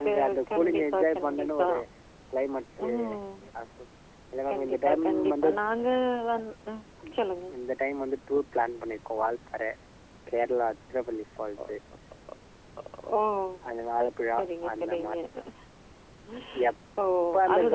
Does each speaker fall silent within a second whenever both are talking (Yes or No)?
No